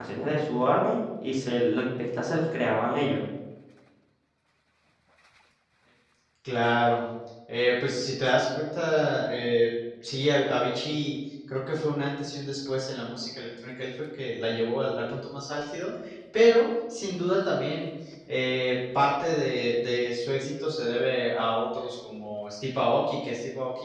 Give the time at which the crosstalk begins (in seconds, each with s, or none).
none